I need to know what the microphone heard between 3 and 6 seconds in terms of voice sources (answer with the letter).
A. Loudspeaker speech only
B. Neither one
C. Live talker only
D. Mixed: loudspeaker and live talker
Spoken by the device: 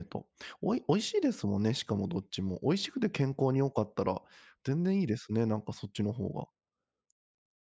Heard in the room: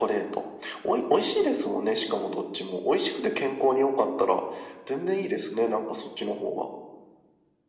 A